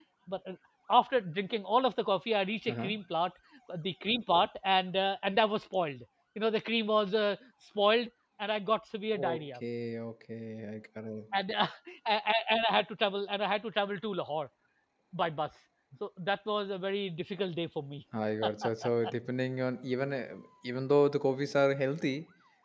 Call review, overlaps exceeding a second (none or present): none